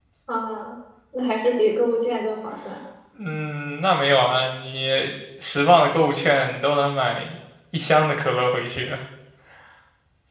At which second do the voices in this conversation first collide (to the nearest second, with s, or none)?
none